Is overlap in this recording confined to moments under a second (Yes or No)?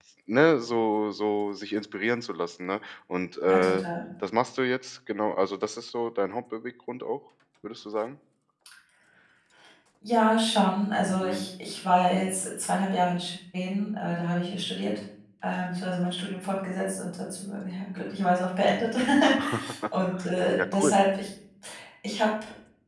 Yes